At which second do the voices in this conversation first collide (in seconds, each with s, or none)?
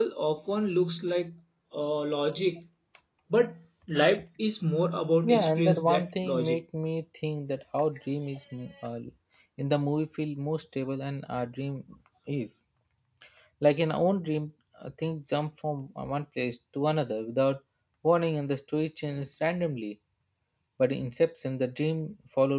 5.2 s